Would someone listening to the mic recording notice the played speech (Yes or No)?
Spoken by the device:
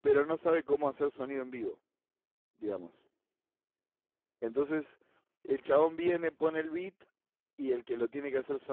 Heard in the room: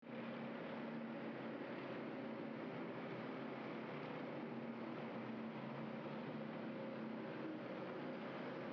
No